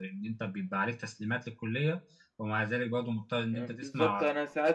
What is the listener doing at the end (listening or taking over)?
taking over